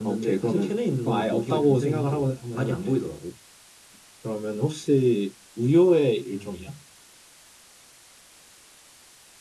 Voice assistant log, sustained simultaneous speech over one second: present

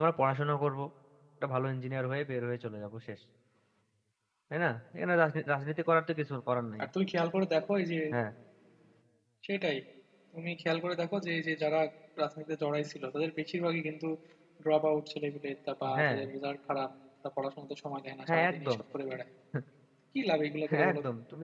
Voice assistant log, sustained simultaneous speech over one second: none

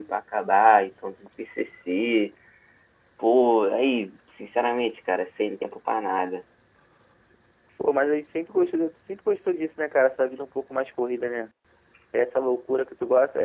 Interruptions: none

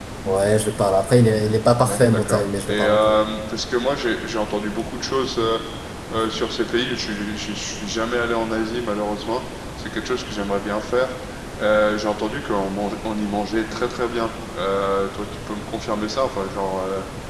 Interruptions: present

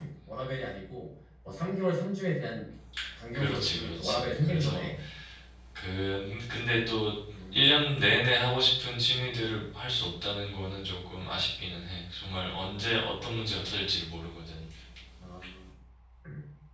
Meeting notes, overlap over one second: present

